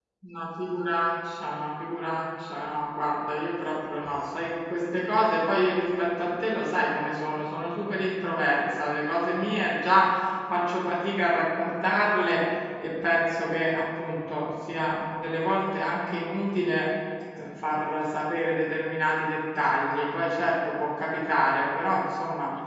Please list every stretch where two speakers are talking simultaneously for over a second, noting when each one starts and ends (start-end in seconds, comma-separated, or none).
none